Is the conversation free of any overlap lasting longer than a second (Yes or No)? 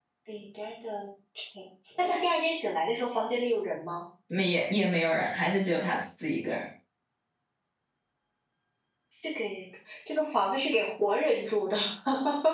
Yes